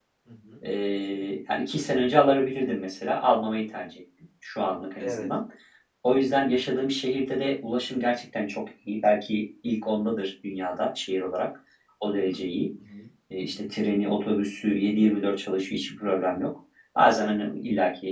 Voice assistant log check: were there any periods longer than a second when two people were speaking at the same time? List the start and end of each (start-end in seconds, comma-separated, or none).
none